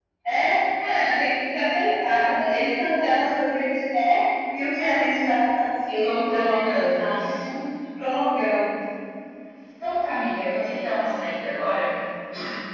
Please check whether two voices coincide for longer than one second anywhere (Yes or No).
Yes